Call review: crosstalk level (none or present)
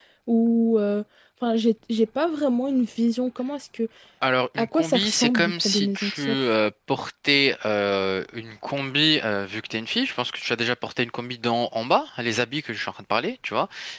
present